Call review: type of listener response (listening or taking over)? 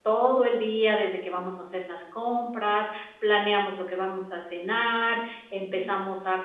listening